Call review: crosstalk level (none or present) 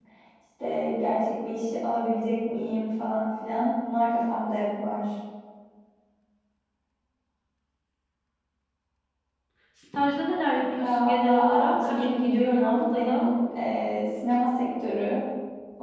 present